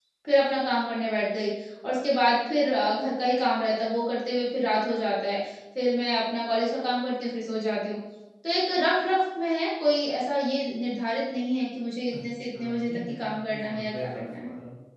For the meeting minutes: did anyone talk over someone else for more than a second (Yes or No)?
Yes